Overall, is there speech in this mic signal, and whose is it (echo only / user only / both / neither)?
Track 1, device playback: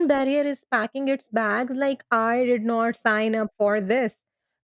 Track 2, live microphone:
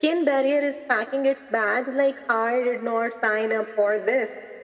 echo only